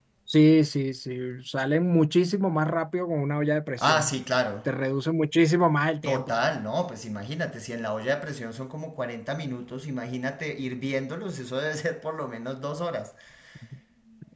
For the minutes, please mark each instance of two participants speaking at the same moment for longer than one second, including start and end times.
none

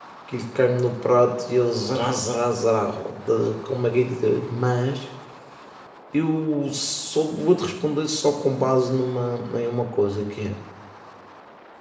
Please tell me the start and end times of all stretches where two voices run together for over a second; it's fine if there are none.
none

